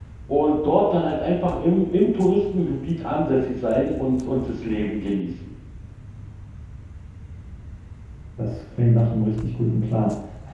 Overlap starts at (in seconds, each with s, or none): none